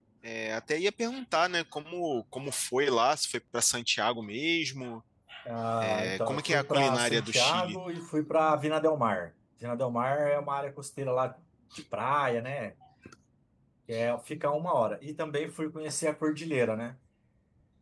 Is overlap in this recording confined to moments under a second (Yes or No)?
No